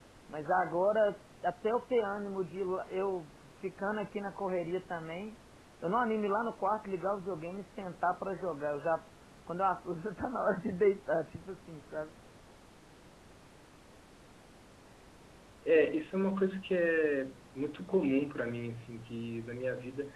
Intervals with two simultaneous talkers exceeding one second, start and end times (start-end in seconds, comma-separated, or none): none